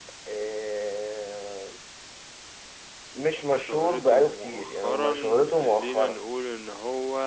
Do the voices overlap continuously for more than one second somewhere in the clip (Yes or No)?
Yes